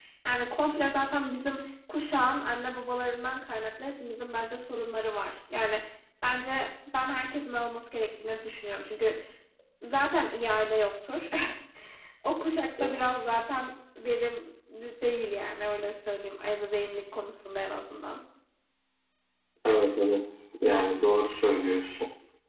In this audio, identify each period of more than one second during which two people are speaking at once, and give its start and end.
none

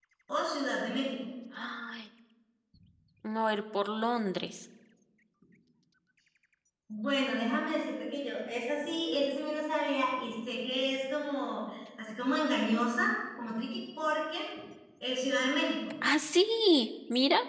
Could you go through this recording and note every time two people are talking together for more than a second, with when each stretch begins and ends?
none

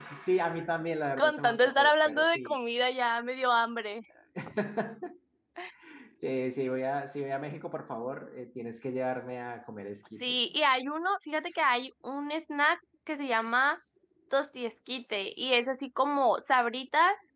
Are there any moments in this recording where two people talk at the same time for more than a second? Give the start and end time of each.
1.2-2.6

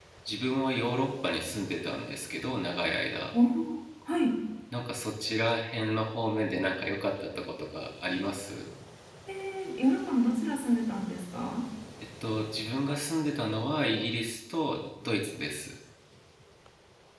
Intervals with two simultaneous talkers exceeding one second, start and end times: none

